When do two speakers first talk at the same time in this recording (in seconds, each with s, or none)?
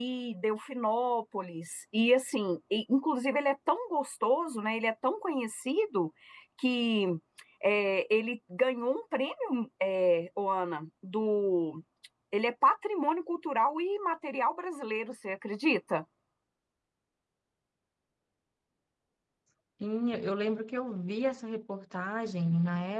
none